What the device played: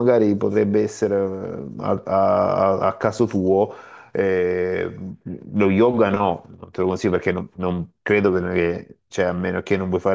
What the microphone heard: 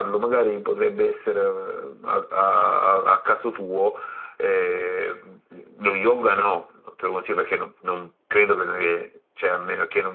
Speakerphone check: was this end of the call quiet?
Yes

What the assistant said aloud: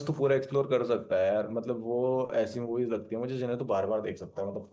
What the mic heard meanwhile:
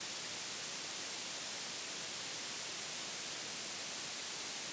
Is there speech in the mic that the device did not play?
No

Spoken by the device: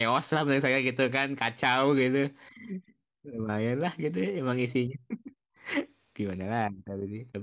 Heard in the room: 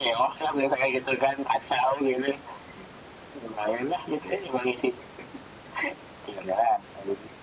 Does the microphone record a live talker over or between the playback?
No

